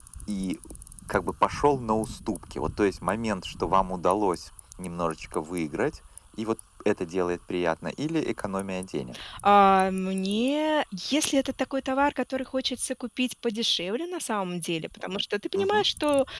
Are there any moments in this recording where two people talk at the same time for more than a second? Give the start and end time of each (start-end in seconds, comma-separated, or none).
none